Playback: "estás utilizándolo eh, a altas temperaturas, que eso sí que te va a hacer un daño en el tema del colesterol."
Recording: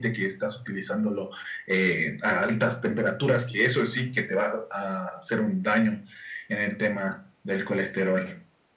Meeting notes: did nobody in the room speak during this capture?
Yes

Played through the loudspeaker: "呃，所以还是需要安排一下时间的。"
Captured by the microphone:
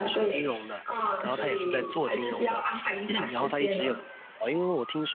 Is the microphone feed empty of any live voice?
No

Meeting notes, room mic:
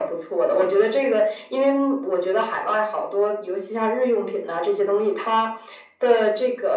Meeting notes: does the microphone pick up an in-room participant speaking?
No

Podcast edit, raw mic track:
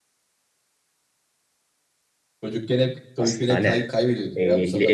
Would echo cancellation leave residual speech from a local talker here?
Yes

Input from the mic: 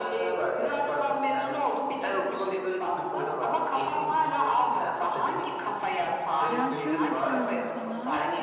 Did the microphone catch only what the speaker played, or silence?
No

